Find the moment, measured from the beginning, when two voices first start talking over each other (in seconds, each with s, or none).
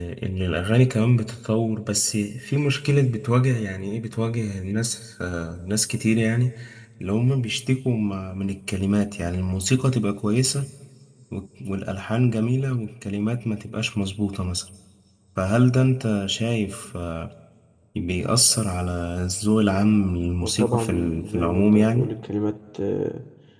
20.4 s